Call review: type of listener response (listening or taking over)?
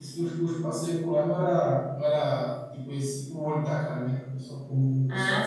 taking over